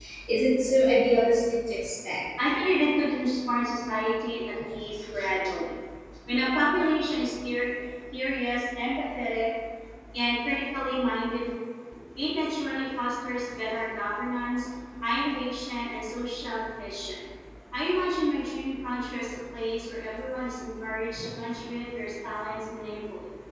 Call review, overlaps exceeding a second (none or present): none